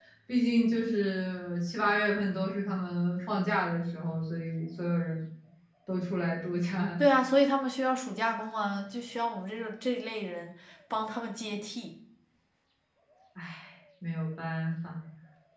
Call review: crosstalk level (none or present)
none